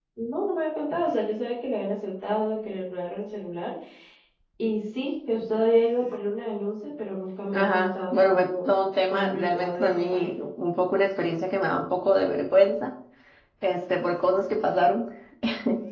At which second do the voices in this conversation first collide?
7.5 s

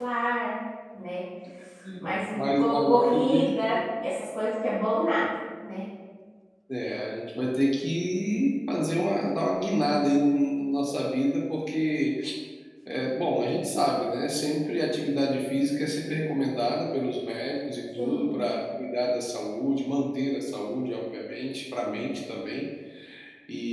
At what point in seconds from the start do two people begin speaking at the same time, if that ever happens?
2.3 s

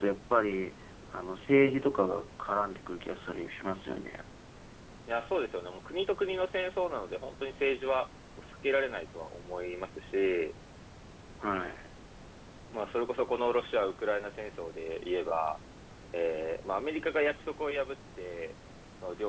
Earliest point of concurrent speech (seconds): none

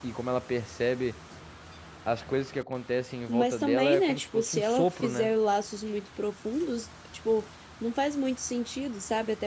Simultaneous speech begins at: 3.3 s

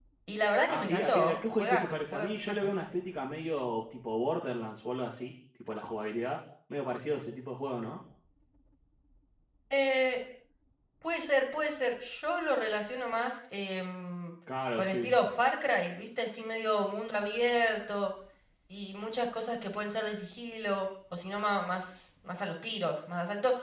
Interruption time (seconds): 0.7 s

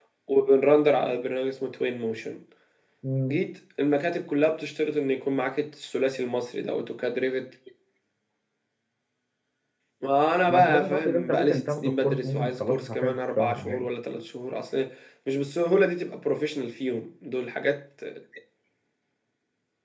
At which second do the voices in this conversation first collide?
10.5 s

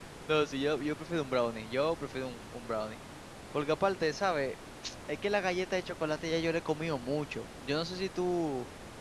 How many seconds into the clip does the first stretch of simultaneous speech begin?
none

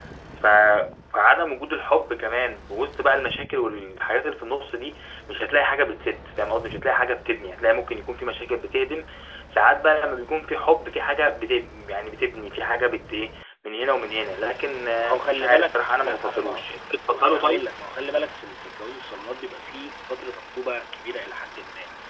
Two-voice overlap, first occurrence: 15.0 s

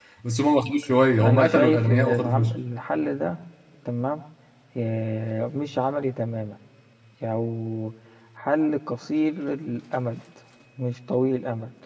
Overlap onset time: 1.2 s

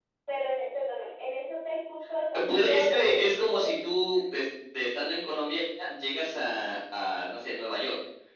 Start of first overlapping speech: 2.3 s

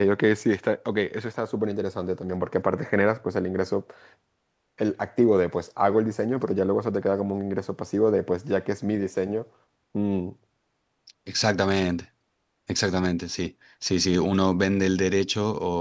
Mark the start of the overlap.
none

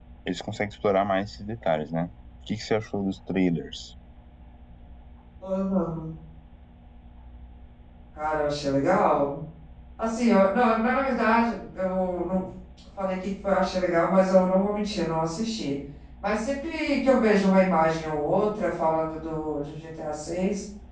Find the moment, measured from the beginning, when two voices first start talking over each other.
none

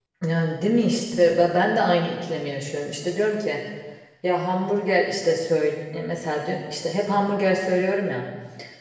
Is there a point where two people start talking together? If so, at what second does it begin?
none

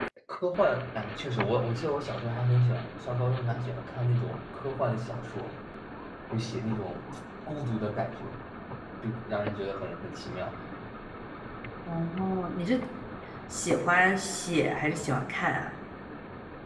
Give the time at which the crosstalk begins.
none

